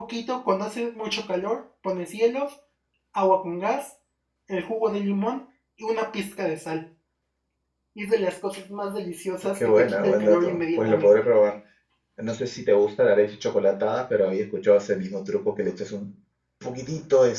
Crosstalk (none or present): present